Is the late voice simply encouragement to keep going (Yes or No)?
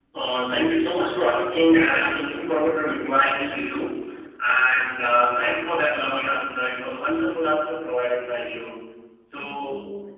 Yes